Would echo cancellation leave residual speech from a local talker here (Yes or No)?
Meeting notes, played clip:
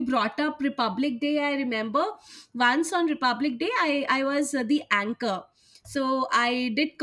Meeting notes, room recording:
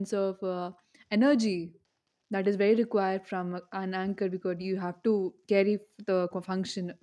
Yes